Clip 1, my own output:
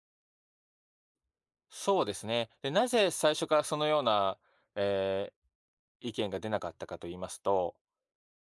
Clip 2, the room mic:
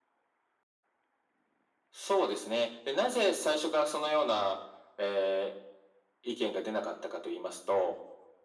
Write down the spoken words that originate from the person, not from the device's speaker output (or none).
none